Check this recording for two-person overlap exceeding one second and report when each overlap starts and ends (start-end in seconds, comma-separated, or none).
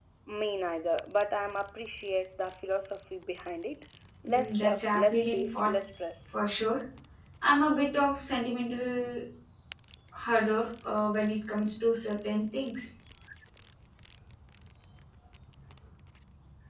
4.3-5.7